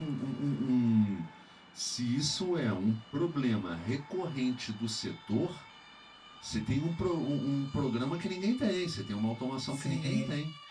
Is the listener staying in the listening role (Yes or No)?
No